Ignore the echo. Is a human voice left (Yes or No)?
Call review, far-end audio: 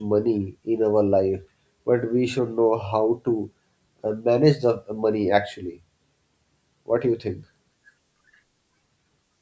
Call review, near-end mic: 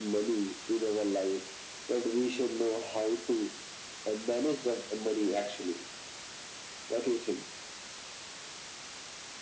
No